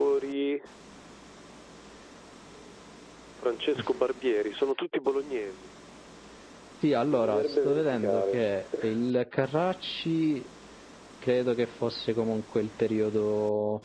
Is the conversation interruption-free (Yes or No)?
No